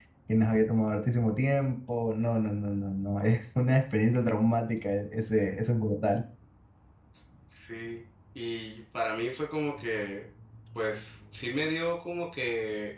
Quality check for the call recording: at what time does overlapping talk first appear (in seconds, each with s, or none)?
none